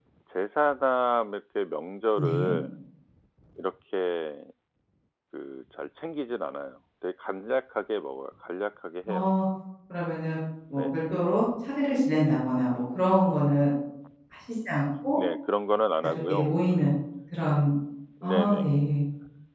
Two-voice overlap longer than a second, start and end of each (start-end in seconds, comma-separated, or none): none